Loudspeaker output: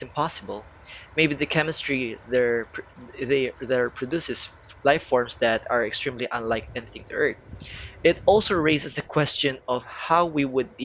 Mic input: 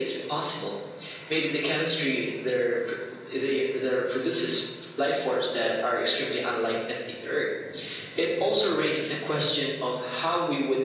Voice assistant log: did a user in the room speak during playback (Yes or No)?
No